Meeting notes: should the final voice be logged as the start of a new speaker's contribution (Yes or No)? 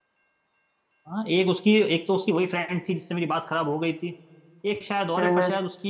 No